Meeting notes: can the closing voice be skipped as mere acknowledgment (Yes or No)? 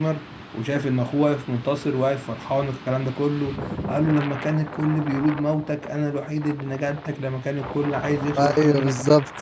Yes